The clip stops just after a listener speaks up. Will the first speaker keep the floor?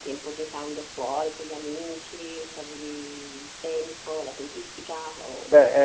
No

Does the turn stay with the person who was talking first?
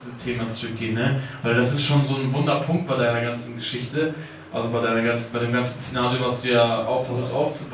Yes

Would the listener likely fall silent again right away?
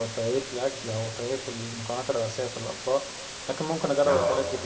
Yes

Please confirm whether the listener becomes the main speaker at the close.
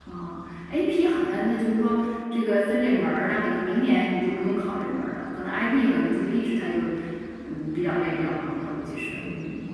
Yes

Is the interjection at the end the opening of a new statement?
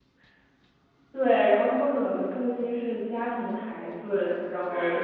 Yes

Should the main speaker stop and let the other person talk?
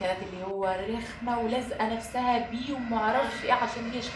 No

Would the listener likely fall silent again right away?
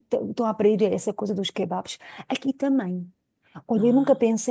Yes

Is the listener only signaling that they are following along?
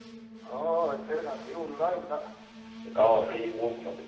No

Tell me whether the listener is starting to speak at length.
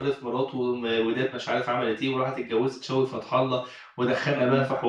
No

